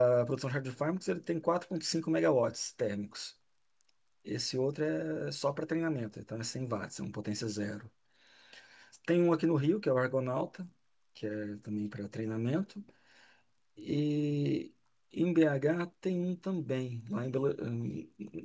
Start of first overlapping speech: none

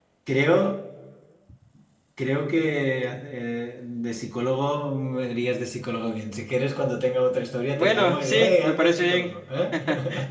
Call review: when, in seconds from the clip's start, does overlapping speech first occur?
8 s

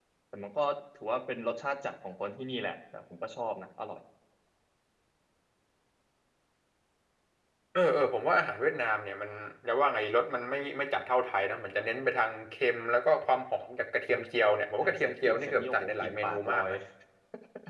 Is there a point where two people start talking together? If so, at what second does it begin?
15 s

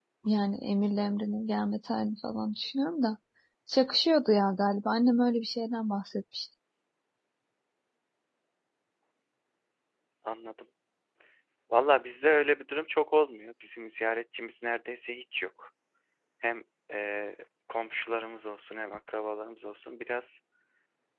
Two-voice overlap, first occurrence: none

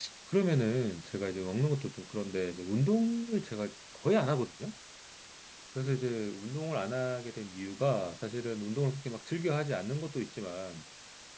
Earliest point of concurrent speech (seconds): none

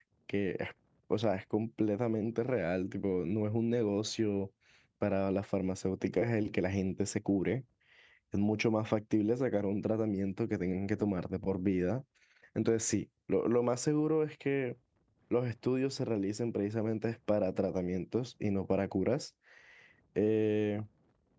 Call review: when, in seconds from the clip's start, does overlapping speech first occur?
none

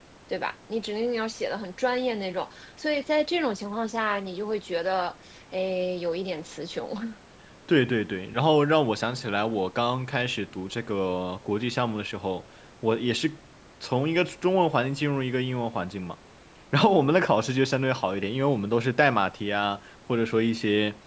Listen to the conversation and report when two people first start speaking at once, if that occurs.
none

